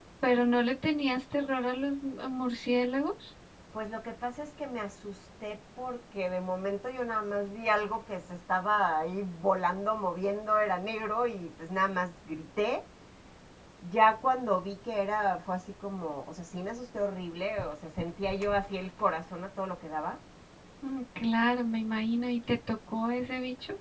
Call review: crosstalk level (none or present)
none